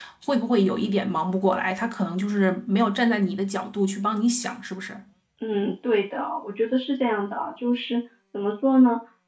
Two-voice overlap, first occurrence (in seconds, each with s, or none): none